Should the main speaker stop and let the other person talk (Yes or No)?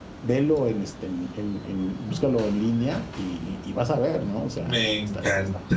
Yes